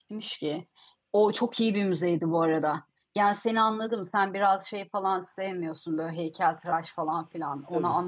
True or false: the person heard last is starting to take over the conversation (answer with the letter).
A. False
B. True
A